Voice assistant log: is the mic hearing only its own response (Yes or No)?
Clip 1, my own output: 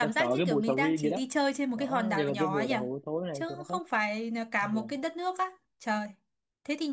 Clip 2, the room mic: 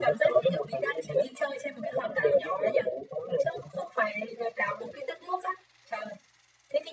Yes